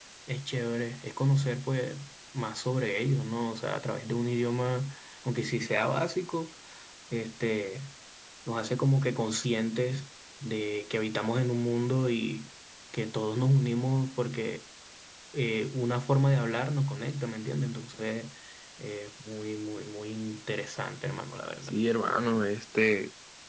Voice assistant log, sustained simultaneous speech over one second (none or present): none